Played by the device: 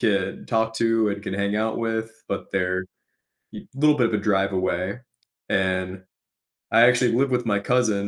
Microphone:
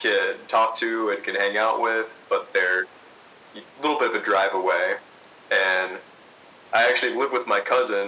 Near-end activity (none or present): none